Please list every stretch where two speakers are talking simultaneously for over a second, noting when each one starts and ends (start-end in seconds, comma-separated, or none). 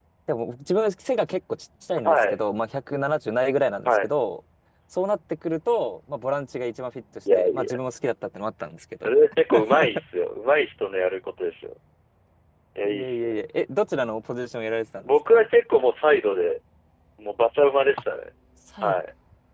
none